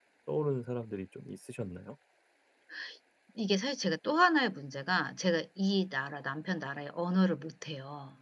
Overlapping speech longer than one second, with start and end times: none

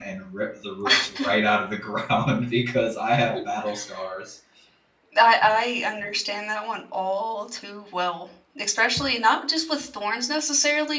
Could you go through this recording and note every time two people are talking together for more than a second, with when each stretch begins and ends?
none

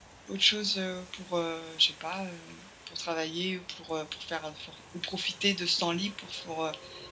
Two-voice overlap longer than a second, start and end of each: none

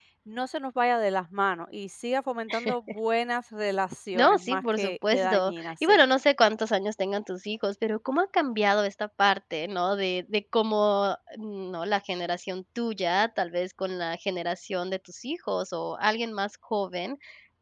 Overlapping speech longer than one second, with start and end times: 4.1-6.0

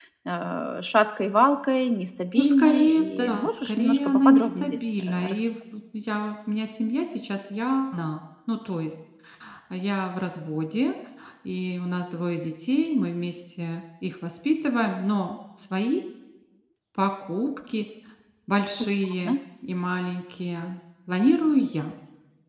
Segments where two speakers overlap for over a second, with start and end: 2.4-5.4

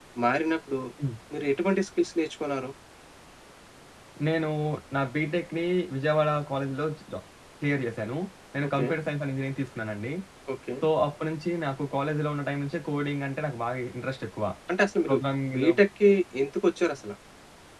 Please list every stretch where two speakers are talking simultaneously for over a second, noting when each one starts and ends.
none

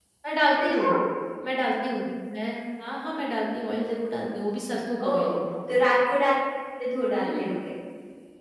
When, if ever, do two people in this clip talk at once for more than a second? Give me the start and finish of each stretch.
none

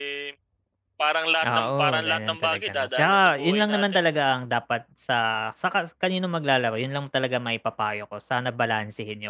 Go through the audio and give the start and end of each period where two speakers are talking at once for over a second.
1.4-4.0

